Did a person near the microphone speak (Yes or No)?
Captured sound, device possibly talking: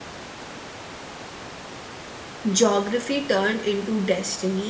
Yes